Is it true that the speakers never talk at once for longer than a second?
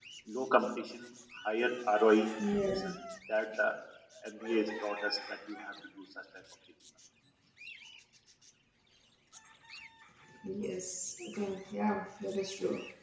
Yes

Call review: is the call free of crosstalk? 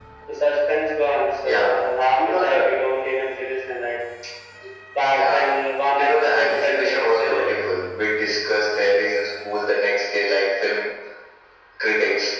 No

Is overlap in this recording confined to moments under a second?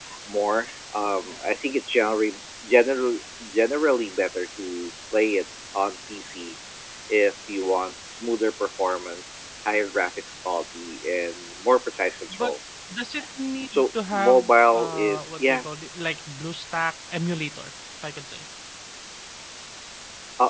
No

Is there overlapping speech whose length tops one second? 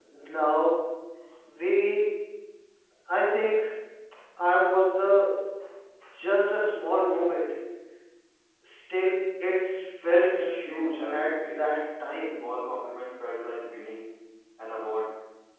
Yes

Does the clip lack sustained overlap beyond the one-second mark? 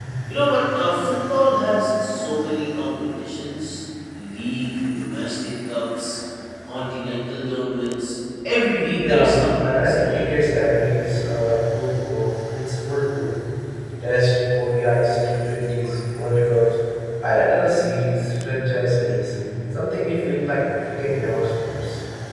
No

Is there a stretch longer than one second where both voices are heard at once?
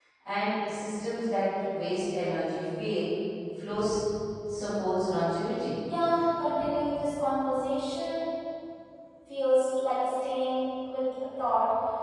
No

